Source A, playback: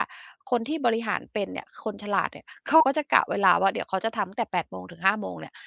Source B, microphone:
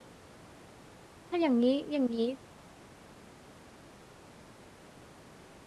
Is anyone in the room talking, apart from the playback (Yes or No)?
Yes